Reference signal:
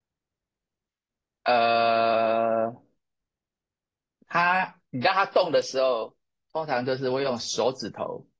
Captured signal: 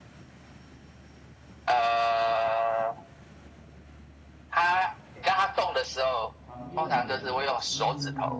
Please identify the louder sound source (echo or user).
echo